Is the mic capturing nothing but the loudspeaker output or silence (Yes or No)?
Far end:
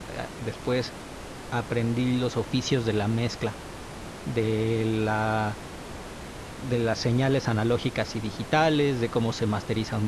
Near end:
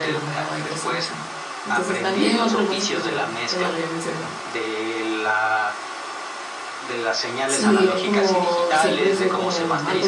No